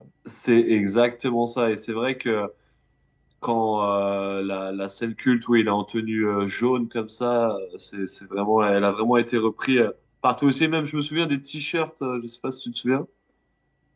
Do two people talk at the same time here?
No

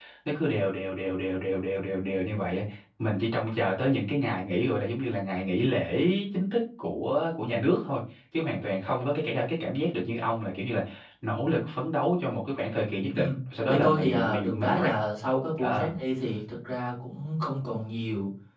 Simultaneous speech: Yes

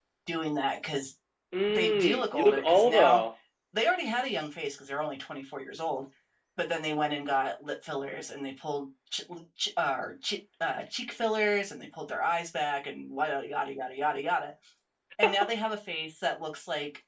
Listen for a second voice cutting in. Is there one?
Yes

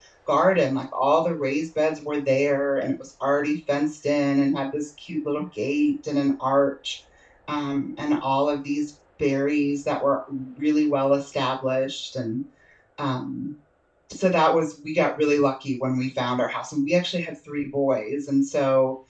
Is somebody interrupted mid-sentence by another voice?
No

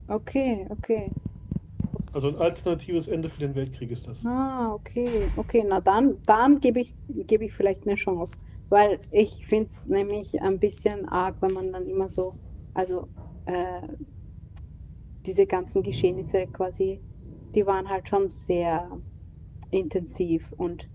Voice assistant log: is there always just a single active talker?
Yes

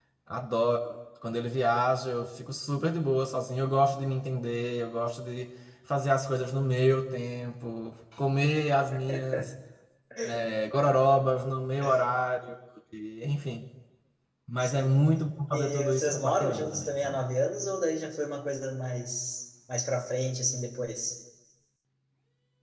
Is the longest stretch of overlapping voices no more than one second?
No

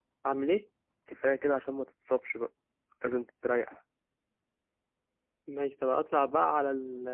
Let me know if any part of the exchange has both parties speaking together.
No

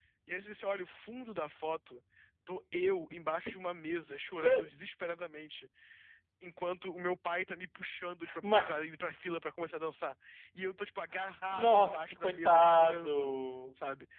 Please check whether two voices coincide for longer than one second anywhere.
Yes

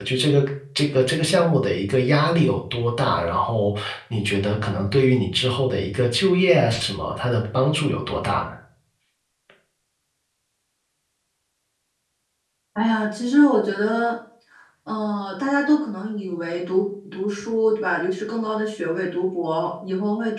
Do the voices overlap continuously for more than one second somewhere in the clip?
No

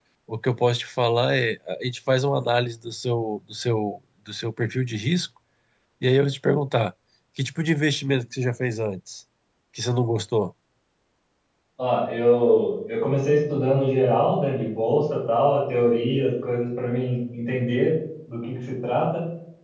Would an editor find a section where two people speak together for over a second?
No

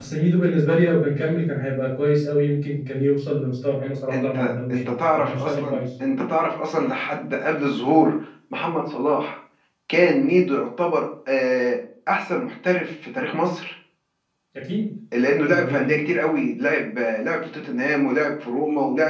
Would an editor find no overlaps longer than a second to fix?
No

